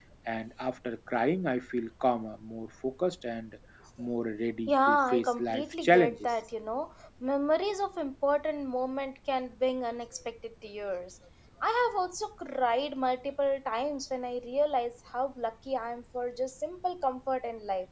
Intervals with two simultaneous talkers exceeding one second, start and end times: 4.7-6.3

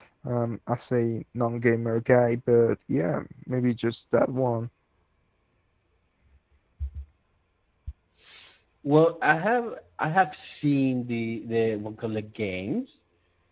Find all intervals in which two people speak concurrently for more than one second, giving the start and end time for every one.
none

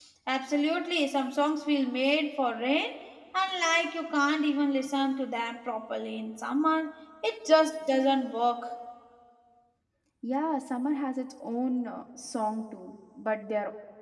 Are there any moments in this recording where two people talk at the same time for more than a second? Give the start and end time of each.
none

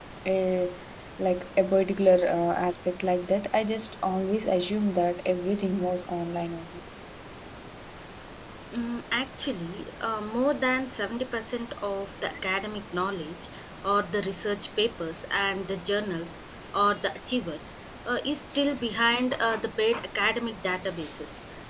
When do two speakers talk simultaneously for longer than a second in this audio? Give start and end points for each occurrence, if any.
none

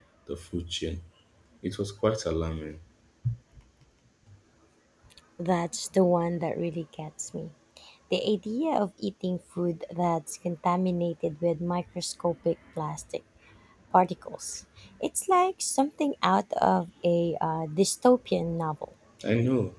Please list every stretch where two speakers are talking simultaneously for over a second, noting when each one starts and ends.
none

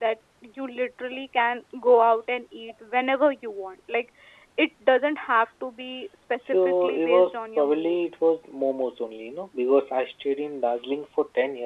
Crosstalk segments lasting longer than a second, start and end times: 6.4-8.0

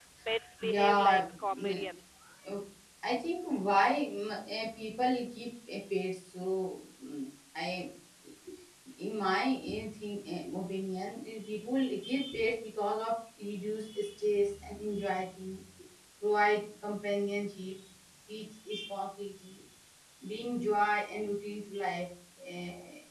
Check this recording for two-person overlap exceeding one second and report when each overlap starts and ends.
0.6-1.8

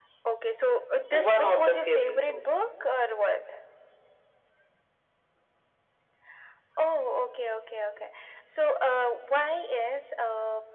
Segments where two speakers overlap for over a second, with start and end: 1.1-2.5

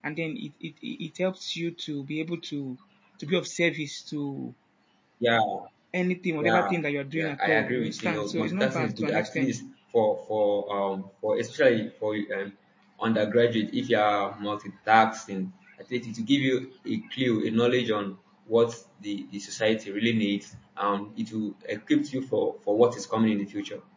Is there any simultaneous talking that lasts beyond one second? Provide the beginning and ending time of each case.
7.2-9.6

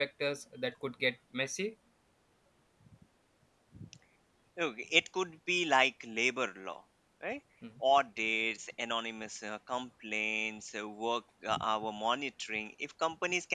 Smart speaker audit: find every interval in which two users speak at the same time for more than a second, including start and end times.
none

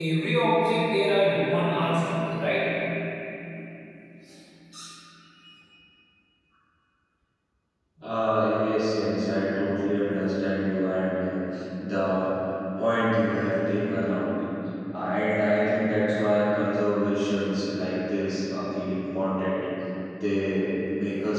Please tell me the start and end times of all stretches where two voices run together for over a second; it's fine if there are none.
none

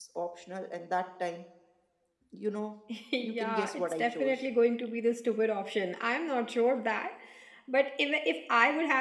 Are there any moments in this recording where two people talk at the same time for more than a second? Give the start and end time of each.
3.2-4.4

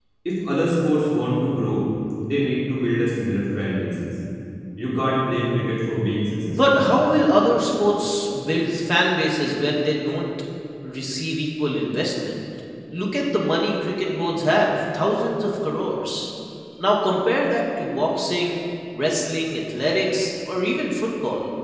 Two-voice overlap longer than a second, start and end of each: none

